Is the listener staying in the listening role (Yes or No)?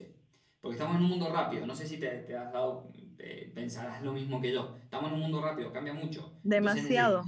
No